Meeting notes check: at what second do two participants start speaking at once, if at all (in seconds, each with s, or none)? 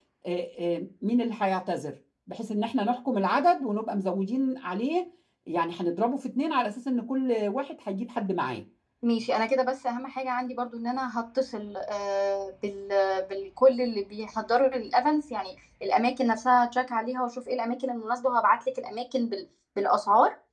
none